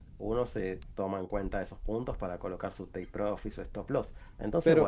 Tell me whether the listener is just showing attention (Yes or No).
No